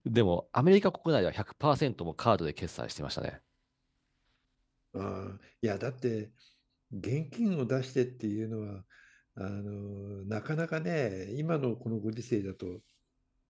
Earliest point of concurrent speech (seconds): none

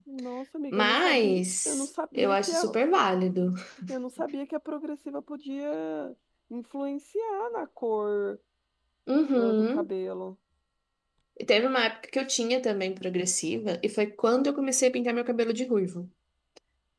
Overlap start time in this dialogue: 0.7 s

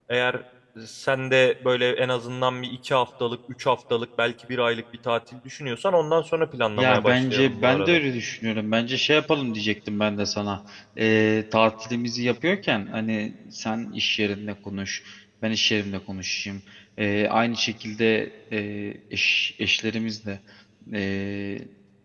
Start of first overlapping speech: 6.8 s

